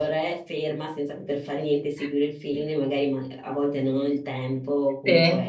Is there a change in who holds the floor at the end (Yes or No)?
No